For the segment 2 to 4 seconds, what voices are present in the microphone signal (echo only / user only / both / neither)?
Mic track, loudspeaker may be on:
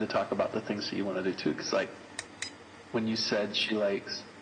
echo only